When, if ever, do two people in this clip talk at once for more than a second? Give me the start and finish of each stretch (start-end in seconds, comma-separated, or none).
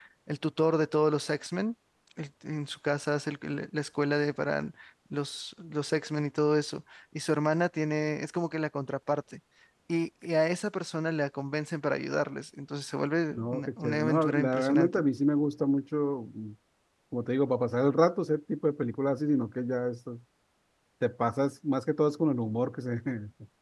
13.4-15.0